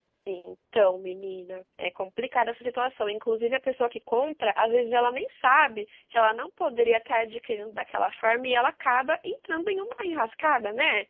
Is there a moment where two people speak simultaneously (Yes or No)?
No